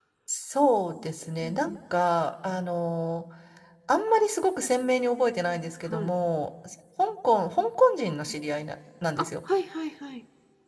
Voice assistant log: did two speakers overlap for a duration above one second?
No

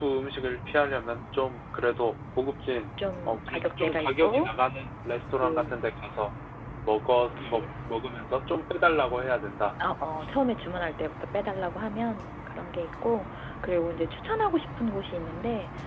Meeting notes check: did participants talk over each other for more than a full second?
Yes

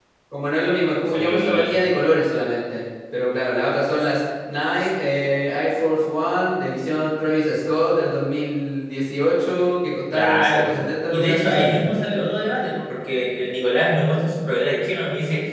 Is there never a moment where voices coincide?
No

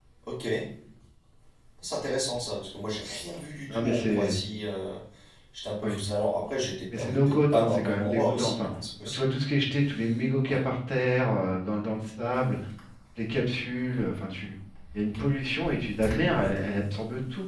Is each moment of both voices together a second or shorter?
No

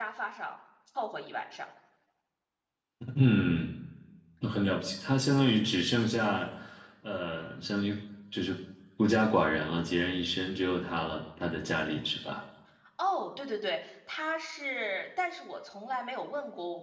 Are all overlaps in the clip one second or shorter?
Yes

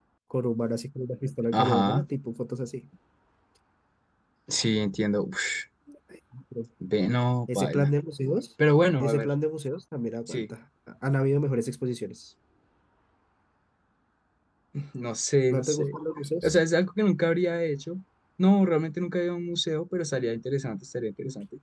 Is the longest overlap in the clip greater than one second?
No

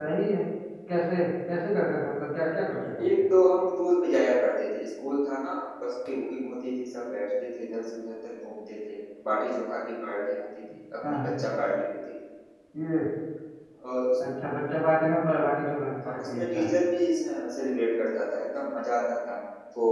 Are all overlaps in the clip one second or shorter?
Yes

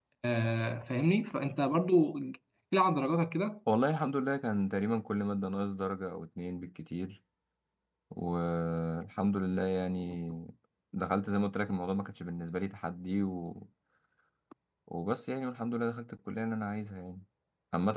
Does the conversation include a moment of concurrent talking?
No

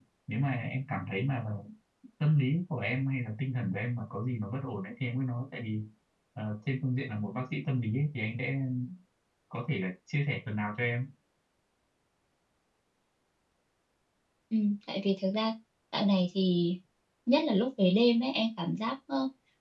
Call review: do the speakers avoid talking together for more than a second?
Yes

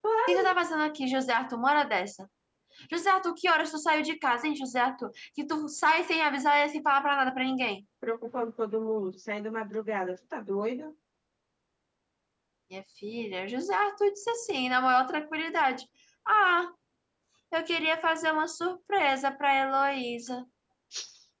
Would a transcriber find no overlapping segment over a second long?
Yes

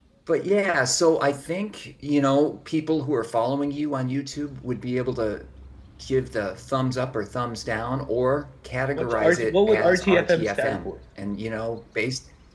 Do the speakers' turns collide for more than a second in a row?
Yes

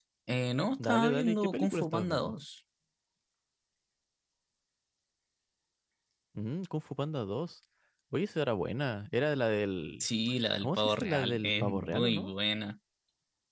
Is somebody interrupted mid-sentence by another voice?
Yes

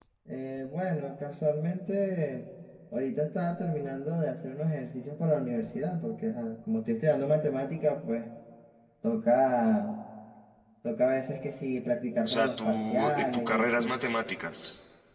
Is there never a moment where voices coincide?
No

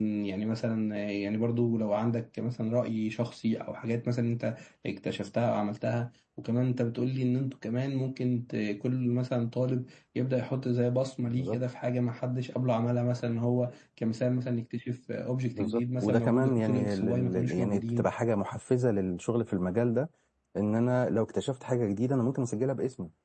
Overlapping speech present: Yes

